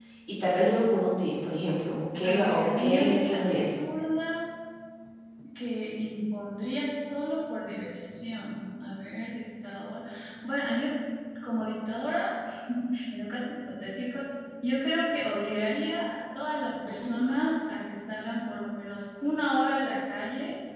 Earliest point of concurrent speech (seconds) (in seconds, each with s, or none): 2.2 s